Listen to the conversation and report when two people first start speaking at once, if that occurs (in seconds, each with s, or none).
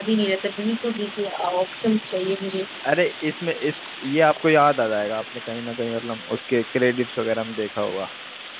none